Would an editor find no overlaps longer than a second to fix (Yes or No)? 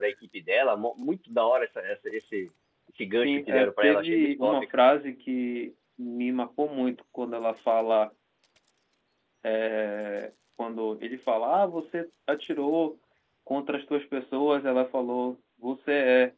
No